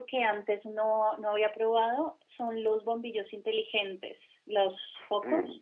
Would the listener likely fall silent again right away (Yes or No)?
No